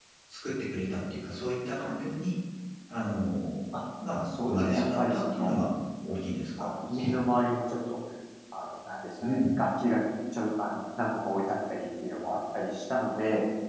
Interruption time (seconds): 4.4 s

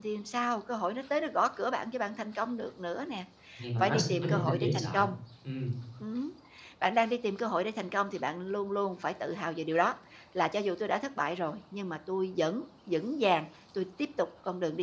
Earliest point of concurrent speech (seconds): 3.8 s

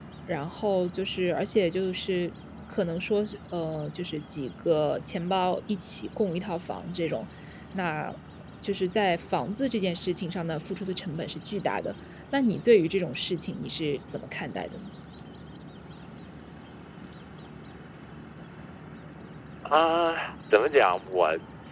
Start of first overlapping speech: none

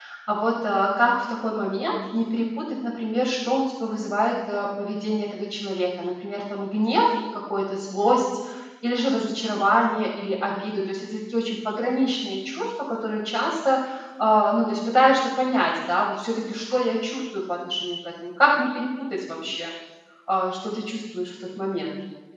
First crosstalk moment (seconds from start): none

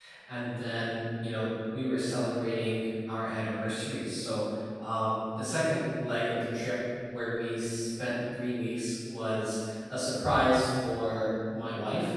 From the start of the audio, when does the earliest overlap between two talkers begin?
none

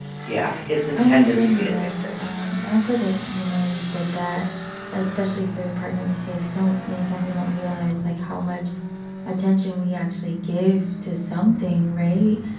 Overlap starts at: 1.0 s

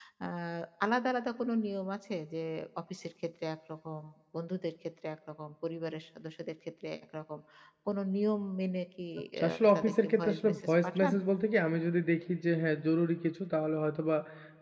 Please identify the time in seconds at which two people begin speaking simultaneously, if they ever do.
9.4 s

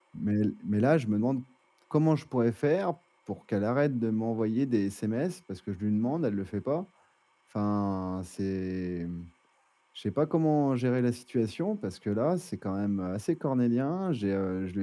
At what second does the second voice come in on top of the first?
none

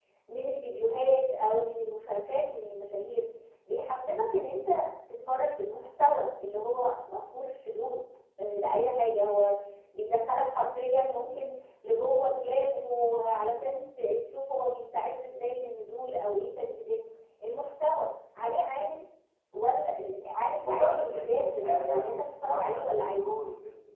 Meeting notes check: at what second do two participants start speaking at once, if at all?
20.6 s

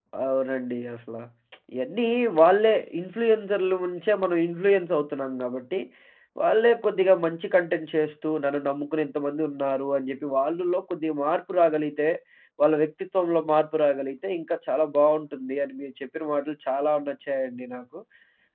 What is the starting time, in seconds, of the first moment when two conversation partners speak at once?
none

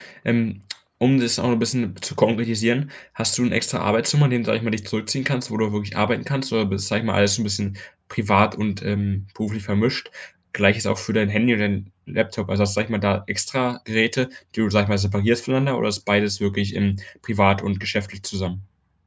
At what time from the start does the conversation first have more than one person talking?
none

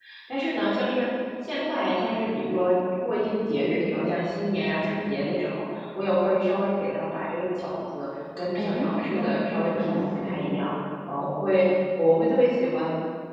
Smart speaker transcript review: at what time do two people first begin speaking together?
8.6 s

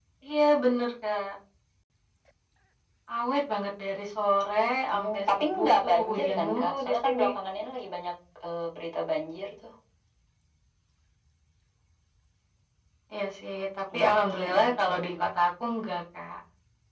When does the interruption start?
4.9 s

